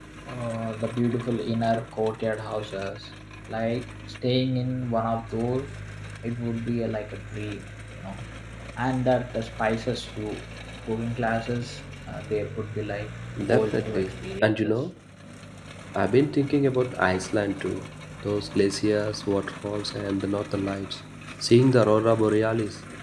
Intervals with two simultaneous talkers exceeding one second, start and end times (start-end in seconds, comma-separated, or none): 13.5-14.7